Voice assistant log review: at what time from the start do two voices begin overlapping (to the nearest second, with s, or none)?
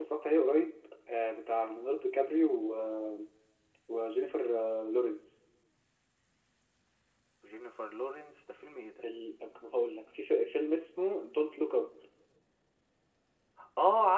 none